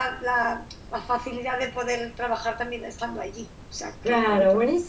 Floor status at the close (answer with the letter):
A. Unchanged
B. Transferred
B